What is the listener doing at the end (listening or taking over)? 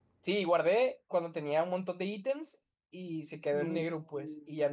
listening